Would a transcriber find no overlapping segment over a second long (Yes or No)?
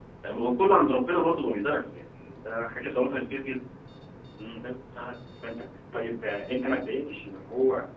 Yes